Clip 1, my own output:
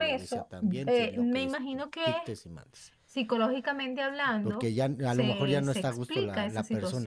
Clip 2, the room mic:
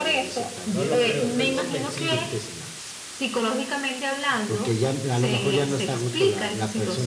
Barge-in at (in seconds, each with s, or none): 0.6 s